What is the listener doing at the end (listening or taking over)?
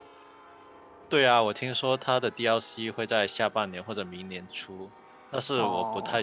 listening